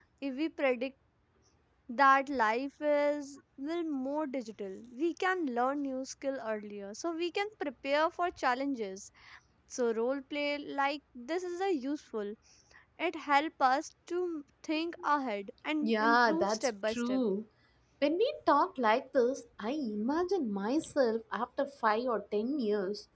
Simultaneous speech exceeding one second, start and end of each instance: 15.8-17.2

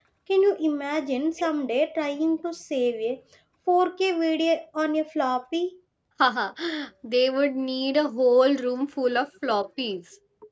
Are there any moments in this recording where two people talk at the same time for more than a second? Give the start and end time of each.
none

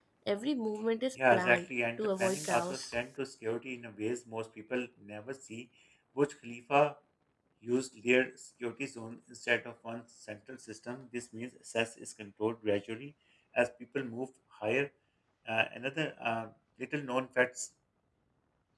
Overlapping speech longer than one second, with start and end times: 1.3-3.0

